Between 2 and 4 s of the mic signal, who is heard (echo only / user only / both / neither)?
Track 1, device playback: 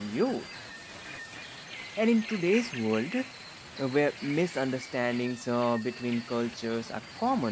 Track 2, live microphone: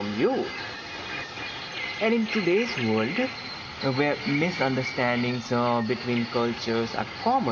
echo only